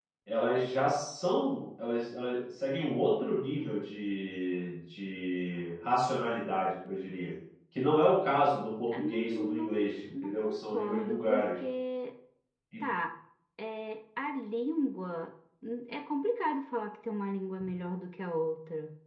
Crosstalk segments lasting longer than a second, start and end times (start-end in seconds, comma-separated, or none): 8.9-11.5